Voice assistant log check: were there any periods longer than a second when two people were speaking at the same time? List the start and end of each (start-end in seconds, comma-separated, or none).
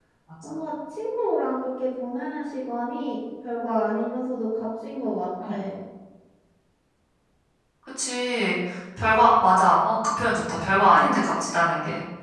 none